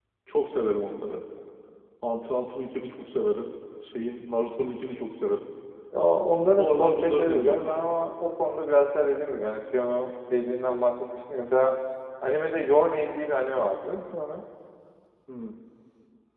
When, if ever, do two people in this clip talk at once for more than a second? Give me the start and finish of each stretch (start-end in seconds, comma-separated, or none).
6.6-7.9